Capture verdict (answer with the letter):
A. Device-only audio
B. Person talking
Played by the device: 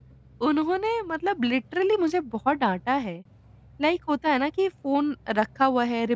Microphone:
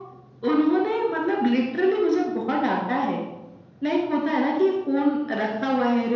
A